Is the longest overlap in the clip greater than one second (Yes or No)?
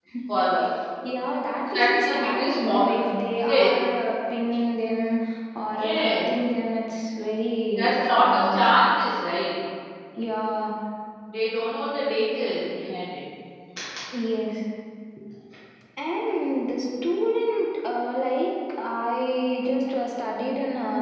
Yes